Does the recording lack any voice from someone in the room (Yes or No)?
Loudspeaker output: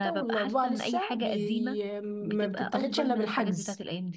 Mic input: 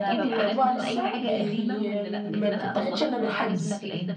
No